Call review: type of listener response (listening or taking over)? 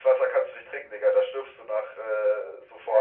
taking over